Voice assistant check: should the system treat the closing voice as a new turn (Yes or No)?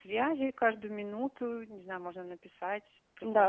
Yes